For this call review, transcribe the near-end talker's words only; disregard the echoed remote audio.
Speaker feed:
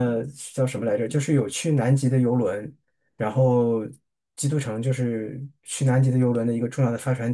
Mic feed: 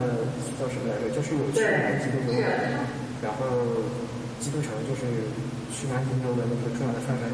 对，是它。

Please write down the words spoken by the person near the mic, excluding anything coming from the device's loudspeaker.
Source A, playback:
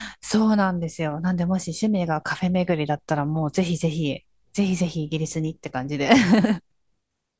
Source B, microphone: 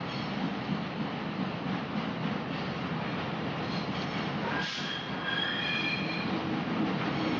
none

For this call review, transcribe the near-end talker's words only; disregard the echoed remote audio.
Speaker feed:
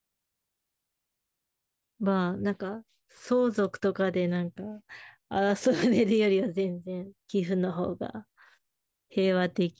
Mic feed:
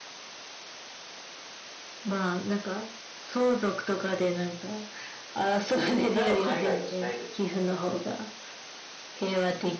回は海外行きたいですね。

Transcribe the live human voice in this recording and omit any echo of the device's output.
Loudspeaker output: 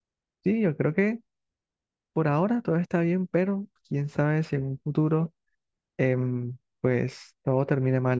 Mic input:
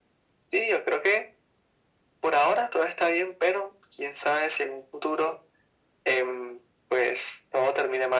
none

